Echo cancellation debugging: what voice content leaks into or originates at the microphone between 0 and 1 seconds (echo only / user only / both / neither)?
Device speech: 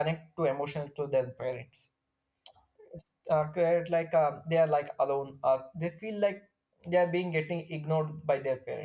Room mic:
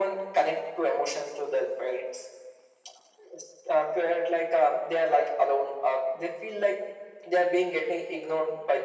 echo only